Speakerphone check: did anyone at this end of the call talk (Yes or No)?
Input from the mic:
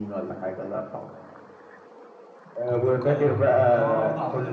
Yes